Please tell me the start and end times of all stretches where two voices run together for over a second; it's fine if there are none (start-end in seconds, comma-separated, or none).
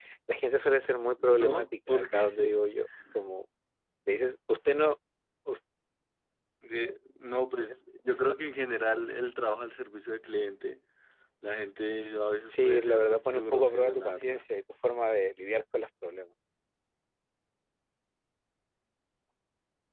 1.2-2.5, 12.5-14.4